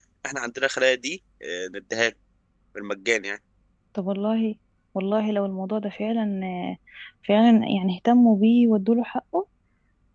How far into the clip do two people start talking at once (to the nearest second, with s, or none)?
none